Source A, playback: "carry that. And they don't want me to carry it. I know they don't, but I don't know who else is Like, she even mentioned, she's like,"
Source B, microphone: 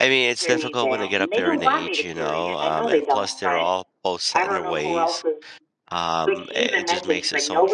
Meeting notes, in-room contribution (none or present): present